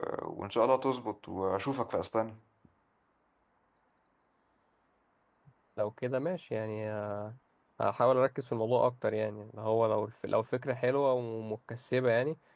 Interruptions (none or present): none